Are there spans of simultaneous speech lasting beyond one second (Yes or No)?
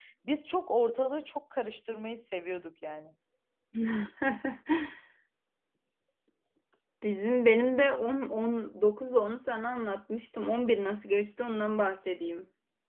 No